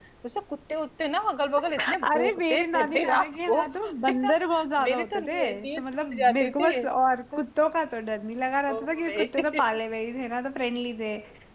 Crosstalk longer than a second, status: present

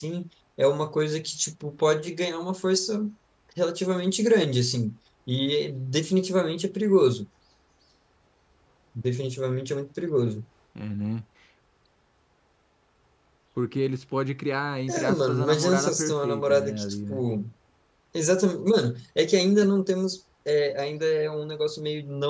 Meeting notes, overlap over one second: present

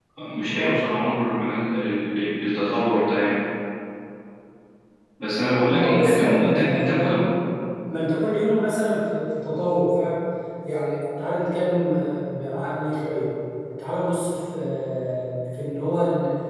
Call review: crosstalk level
present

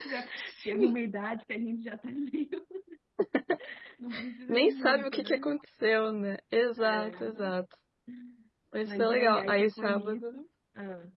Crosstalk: present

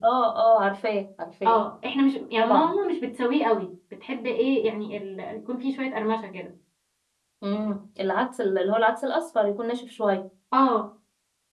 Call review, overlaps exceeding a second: none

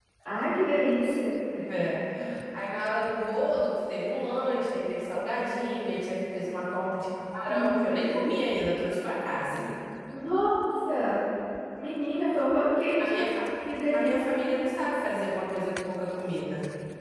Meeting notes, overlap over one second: none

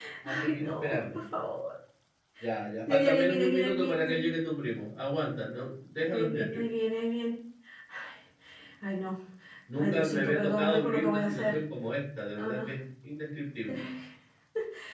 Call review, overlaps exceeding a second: present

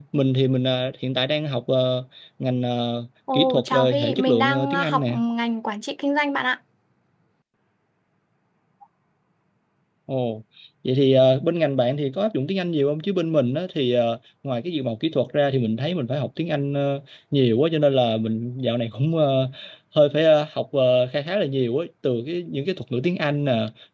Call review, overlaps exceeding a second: present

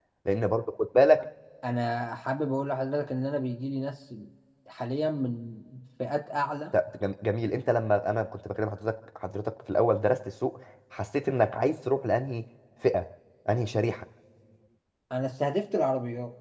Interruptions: none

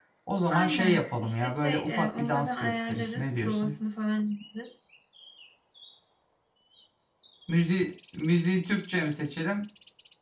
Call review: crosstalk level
present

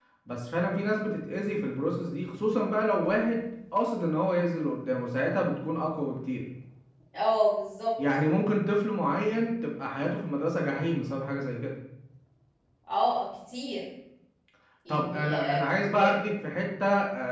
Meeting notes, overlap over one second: present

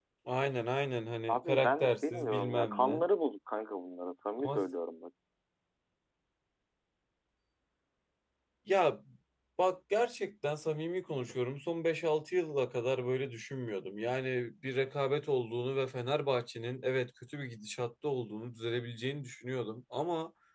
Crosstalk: present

